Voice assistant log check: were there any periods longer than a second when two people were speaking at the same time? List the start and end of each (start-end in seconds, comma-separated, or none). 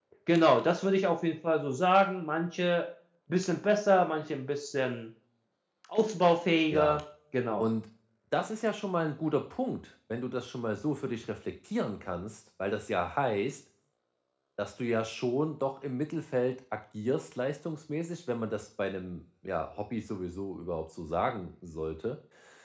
none